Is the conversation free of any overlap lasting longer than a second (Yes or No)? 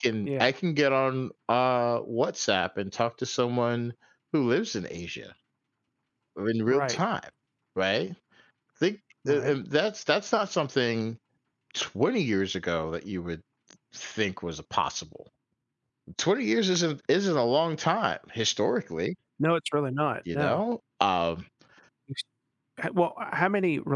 Yes